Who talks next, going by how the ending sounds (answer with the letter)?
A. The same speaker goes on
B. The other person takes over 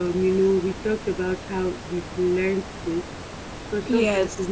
A